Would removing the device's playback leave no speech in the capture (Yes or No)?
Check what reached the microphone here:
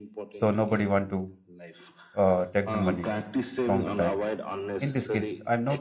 No